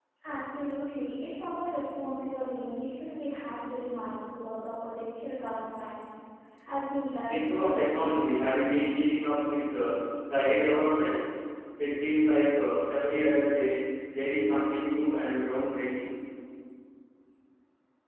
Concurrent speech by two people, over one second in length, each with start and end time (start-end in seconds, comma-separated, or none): 7.3-8.7